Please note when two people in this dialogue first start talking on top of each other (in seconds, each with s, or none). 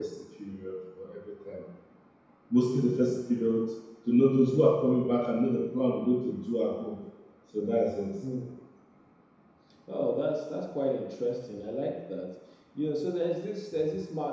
none